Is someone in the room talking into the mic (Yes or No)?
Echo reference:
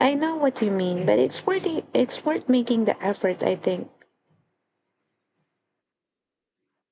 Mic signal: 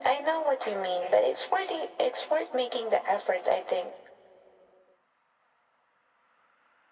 No